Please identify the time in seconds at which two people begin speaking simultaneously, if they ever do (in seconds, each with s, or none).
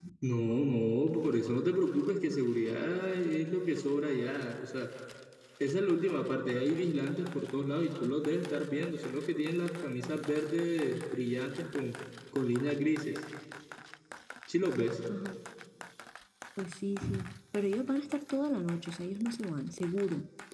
none